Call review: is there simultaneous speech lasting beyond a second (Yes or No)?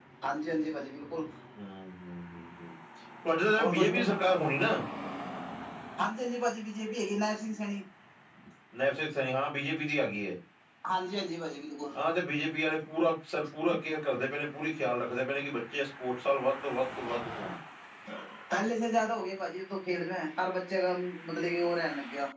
No